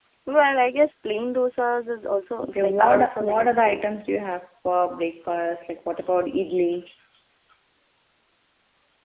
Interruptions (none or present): present